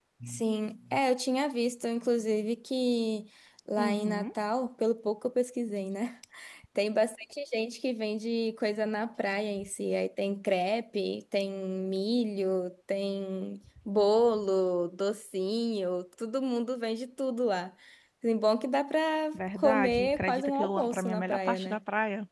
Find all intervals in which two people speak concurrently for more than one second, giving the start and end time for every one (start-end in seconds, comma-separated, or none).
19.6-21.8